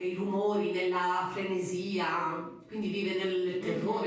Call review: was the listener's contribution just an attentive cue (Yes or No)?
No